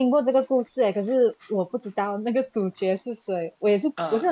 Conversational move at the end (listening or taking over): listening